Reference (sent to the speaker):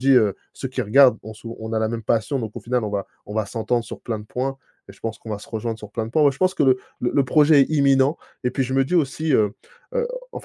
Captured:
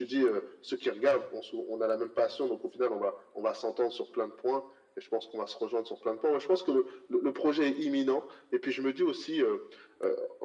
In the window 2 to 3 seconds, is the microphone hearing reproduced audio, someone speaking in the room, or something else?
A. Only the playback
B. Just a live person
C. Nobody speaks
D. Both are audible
A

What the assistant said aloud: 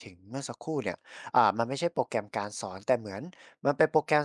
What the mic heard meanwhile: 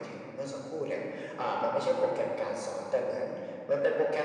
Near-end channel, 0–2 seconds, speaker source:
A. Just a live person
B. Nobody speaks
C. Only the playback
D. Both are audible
C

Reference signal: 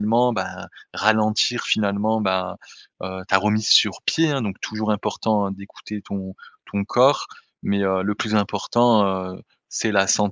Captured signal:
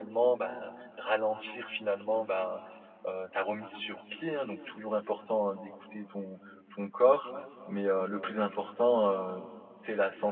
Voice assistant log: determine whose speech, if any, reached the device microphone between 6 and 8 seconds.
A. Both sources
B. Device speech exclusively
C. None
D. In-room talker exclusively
B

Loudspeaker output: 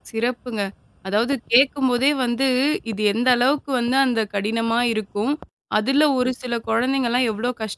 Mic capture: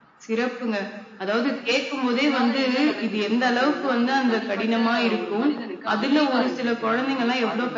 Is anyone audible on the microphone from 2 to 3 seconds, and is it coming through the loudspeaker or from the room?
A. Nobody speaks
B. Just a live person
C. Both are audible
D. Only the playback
C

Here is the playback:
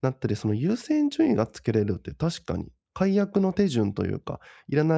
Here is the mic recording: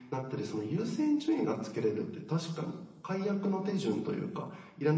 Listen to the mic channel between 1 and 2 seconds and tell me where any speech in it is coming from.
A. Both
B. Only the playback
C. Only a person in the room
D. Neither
B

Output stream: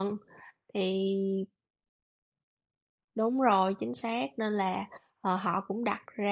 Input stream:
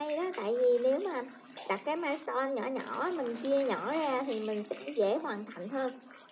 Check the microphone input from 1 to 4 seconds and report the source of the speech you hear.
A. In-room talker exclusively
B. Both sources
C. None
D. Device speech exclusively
A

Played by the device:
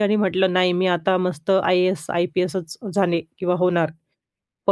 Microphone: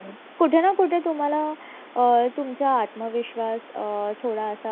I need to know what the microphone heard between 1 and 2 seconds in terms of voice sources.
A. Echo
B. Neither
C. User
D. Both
C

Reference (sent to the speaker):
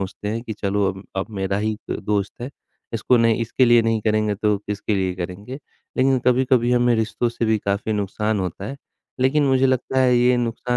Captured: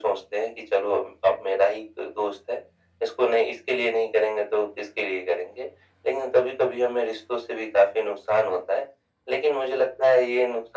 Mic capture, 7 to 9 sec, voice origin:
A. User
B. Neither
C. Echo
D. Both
C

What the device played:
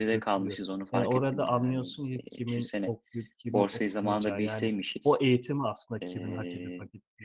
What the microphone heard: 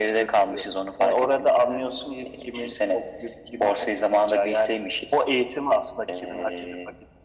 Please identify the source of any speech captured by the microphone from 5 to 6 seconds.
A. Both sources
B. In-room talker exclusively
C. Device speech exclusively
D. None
C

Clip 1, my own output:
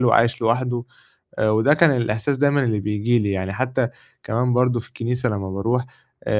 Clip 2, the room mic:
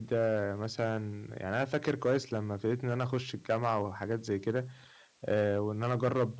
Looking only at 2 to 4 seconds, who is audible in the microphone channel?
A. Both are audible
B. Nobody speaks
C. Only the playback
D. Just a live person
D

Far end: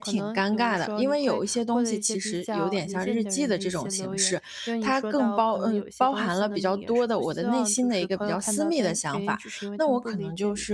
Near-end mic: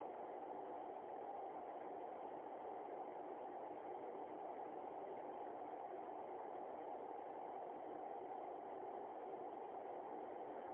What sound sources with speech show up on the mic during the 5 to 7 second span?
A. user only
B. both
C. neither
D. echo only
C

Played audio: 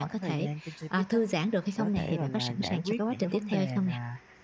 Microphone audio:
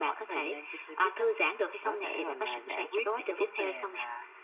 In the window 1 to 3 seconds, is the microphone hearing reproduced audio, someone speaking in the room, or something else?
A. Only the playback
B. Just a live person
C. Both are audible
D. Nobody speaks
A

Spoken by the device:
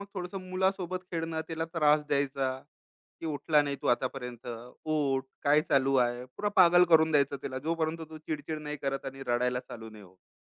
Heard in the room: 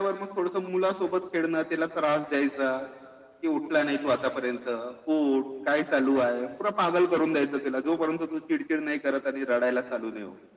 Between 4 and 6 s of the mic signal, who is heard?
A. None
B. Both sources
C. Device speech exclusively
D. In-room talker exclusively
C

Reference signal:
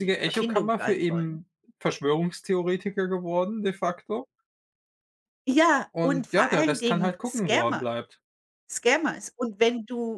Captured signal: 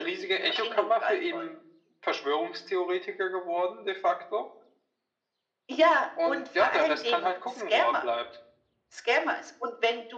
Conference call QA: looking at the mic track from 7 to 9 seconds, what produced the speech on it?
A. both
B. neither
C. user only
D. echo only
D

